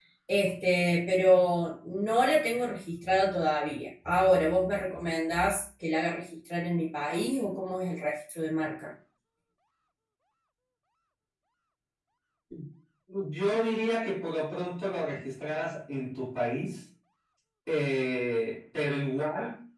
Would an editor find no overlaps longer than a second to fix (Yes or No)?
Yes